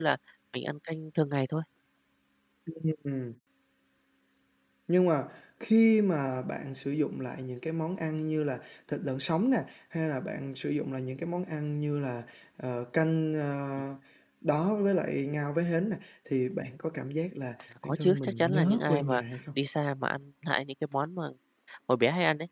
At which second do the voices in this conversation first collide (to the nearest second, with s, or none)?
18 s